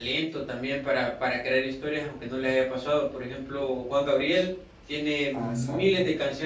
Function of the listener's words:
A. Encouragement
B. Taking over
A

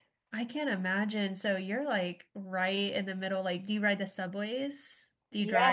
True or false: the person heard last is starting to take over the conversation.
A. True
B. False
A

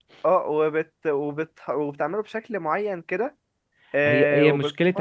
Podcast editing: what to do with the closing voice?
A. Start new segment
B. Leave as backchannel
A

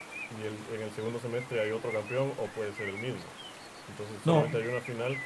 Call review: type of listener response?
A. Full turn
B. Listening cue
B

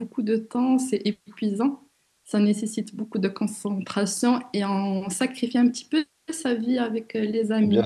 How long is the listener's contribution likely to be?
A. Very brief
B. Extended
B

